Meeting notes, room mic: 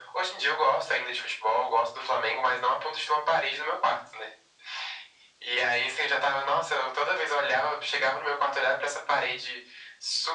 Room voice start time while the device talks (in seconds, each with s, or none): none